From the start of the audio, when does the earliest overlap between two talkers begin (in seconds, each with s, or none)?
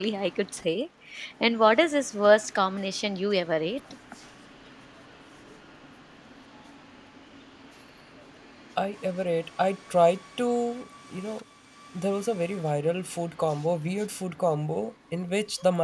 none